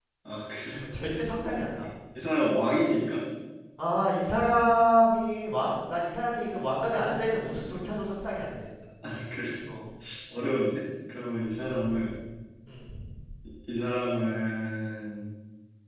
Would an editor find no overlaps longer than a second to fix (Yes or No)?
Yes